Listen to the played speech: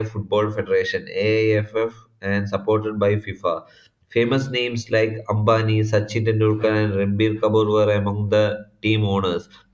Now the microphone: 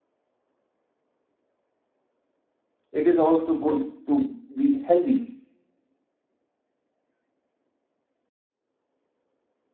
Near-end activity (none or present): present